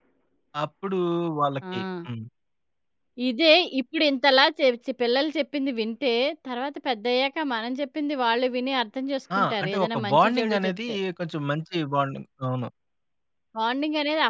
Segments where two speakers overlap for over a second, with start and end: 9.4-11.0

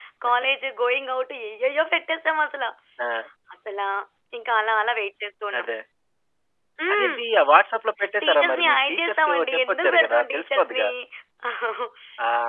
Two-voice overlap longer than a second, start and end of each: 8.2-10.9

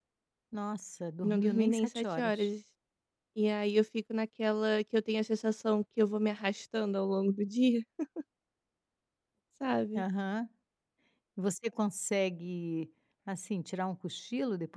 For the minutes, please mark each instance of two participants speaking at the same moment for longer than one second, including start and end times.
1.2-2.5

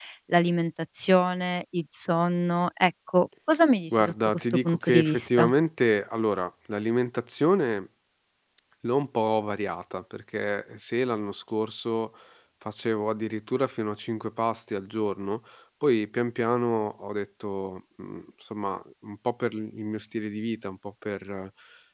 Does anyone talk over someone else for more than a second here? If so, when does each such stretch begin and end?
4.0-5.5

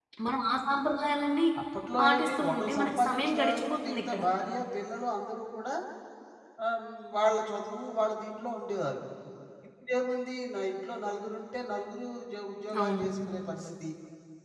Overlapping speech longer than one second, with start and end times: 2.0-4.2

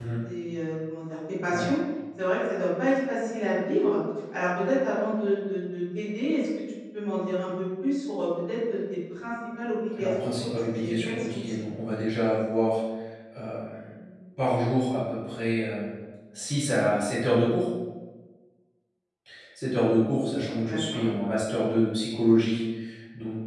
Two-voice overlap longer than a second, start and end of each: 10.0-11.7

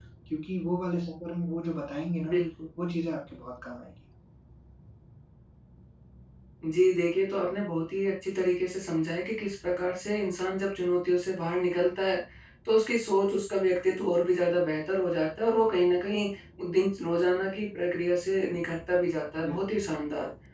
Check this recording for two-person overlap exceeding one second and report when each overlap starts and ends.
none

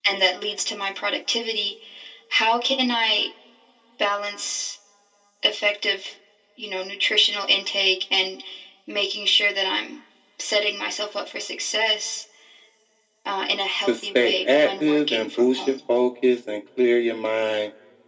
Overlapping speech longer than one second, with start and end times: 13.8-15.8

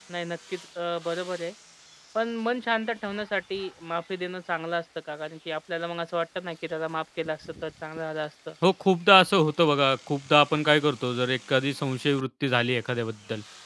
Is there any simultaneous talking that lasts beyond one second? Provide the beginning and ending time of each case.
none

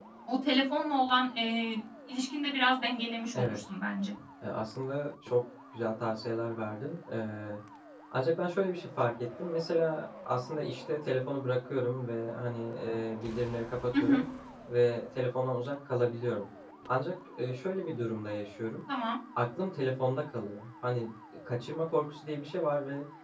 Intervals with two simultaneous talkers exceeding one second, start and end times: none

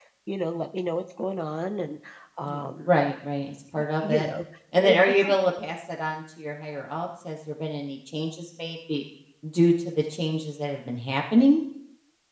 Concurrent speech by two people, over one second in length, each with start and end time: none

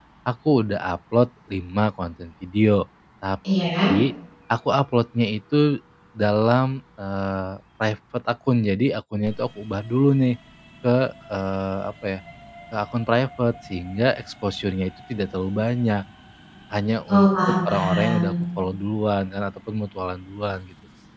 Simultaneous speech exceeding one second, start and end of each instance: 17.1-18.3

